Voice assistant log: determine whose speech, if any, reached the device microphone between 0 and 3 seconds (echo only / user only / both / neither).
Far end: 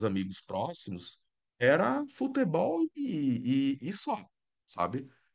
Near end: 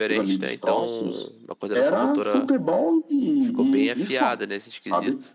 both